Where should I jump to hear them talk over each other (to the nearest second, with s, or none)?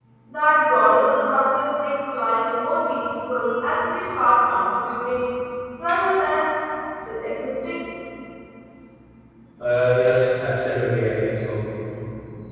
none